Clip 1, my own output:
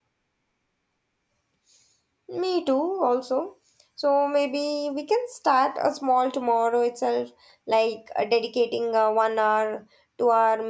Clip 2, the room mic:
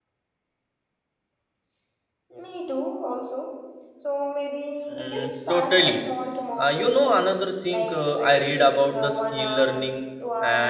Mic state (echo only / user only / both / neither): both